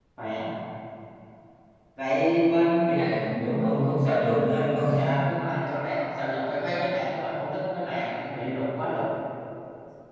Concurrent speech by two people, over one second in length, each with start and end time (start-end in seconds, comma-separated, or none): none